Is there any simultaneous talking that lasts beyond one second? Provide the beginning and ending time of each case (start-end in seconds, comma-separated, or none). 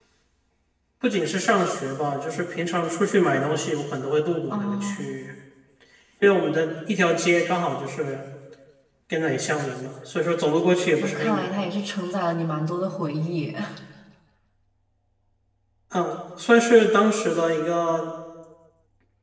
none